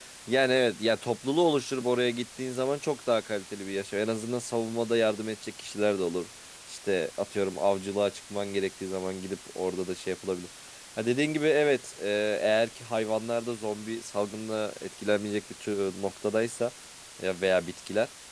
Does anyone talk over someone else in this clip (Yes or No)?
No